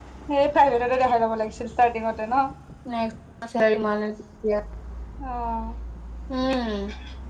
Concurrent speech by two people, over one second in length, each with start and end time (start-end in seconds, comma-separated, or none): none